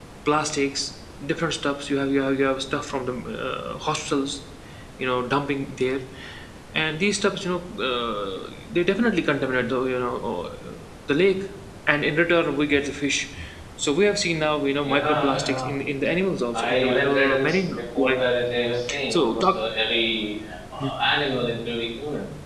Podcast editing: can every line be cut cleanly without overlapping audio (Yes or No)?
No